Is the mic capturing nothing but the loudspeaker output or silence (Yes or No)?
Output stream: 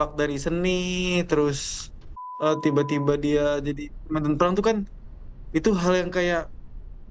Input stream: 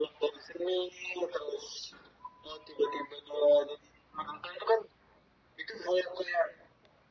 Yes